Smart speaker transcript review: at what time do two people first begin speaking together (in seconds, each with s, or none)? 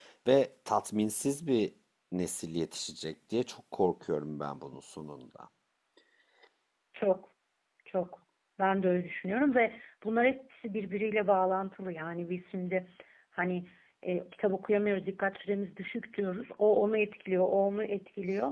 none